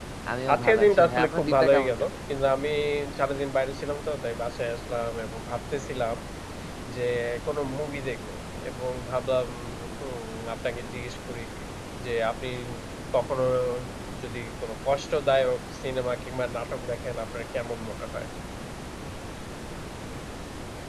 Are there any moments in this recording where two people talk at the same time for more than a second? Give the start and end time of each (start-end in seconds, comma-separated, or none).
0.5-2.1